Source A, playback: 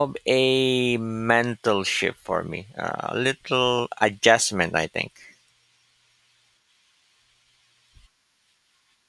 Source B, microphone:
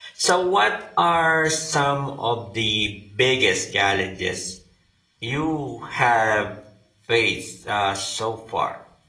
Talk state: user only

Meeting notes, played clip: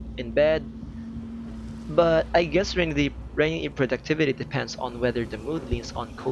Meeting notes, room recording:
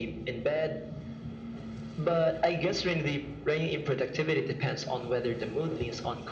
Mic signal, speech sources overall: echo only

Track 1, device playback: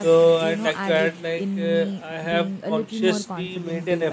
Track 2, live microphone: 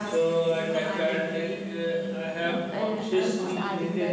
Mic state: both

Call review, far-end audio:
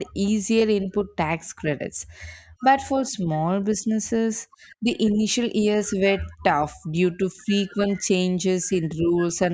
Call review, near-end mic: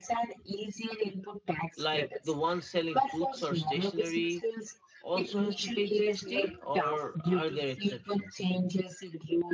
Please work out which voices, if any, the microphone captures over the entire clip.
both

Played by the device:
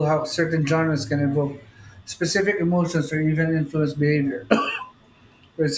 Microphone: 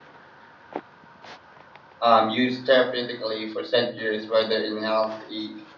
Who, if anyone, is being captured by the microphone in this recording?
user only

